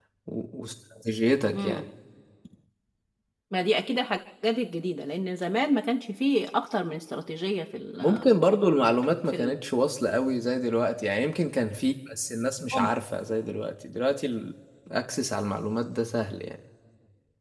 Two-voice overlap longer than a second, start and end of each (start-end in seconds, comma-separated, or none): none